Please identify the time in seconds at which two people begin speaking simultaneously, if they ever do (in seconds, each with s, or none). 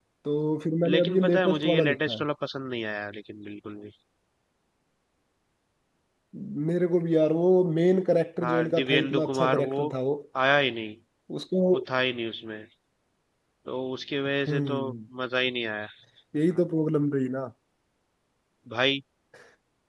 0.8 s